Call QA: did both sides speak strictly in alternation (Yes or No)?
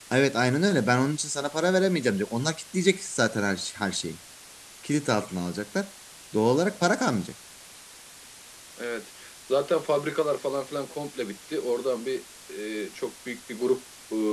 Yes